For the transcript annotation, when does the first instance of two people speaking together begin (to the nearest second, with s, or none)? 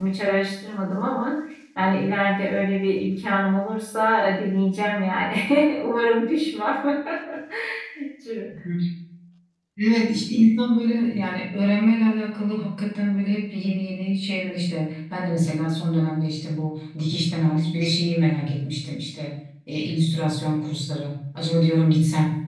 none